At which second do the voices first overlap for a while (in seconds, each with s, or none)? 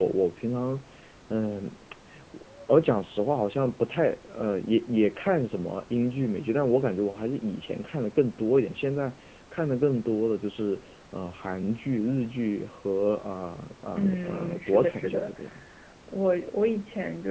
13.9 s